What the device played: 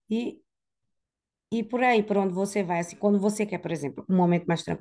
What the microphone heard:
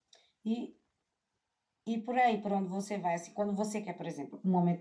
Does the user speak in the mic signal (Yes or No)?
No